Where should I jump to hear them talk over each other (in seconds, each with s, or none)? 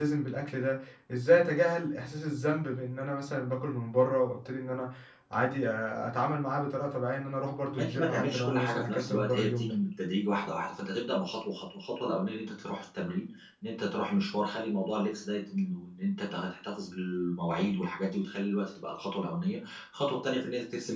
7.8 s